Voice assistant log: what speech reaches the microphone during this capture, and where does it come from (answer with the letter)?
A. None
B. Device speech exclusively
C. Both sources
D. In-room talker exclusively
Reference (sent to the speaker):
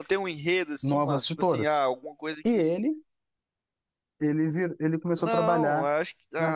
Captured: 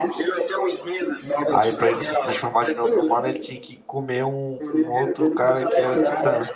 C